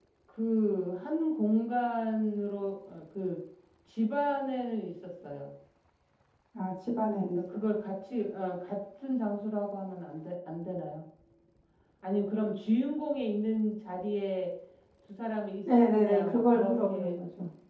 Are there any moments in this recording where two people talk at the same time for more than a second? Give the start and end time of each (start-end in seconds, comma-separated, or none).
15.6-17.1